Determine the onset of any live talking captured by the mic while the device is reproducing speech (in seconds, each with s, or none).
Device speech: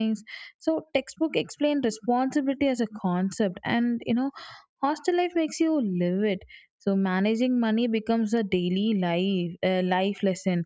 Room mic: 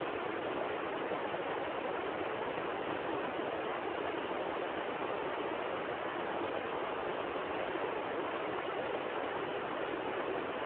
none